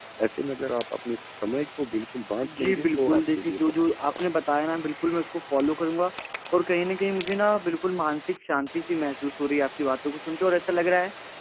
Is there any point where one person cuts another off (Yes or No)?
Yes